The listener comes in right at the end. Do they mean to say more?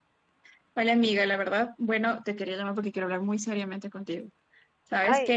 No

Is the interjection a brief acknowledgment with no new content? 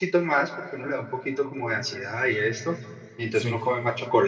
Yes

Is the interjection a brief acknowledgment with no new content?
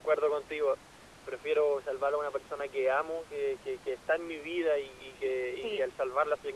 Yes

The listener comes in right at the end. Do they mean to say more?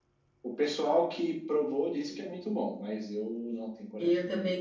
Yes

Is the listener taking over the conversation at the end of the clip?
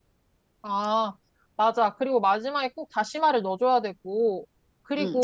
Yes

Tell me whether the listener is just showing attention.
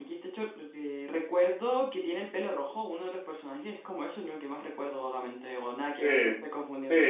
No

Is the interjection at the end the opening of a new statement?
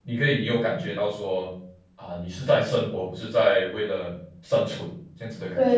Yes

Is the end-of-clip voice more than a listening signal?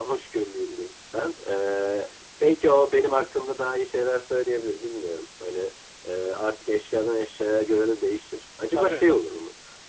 No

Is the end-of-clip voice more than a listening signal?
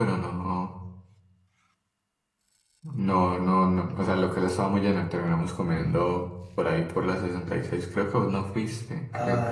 Yes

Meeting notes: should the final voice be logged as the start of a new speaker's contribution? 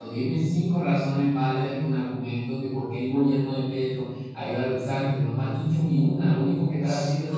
Yes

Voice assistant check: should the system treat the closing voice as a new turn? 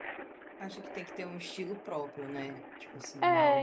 Yes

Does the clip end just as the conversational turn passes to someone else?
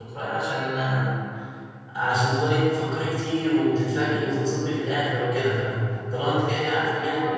No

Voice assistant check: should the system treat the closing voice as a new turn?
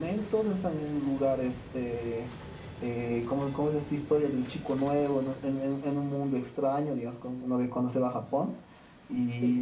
No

